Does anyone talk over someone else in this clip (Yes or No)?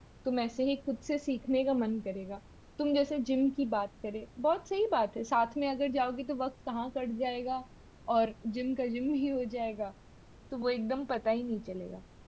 No